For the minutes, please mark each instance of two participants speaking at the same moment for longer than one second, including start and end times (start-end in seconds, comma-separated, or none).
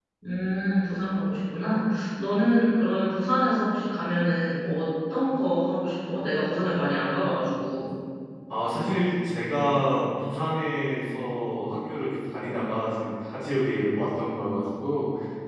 none